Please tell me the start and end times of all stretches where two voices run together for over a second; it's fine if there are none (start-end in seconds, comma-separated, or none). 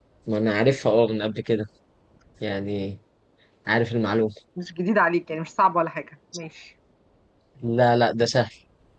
none